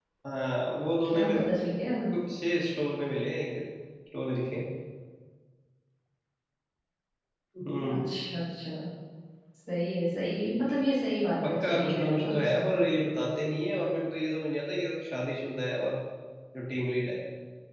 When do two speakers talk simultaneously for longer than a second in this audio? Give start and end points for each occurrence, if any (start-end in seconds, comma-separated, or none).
11.4-12.7